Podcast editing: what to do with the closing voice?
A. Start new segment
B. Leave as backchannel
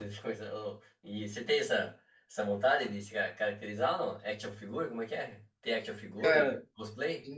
A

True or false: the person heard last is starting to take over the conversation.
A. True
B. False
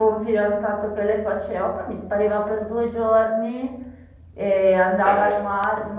B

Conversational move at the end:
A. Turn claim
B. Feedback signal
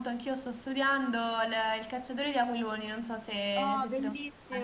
A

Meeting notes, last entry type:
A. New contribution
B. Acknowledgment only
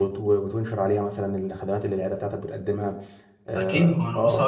A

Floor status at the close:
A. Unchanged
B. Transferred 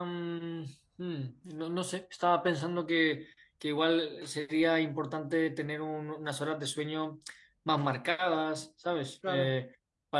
A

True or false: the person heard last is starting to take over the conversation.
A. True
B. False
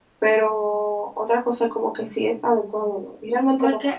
A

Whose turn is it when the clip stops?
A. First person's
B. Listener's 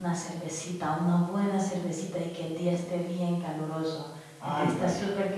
A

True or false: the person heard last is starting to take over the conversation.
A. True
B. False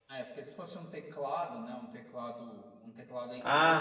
A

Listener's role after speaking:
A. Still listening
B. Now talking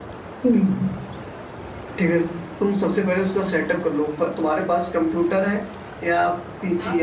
A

